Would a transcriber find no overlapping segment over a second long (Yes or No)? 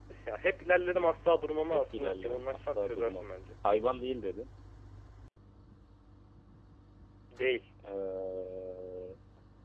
No